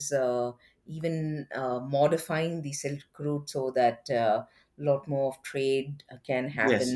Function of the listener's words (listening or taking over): listening